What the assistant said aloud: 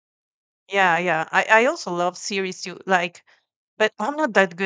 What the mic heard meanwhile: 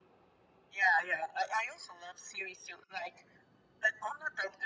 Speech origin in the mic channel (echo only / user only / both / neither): echo only